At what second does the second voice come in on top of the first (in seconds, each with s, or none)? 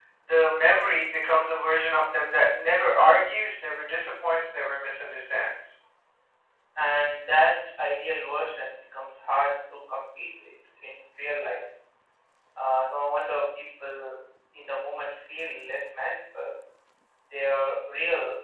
none